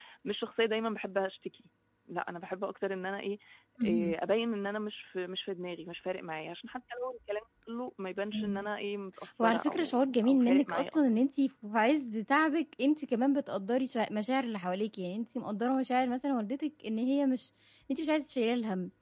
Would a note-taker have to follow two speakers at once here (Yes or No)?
Yes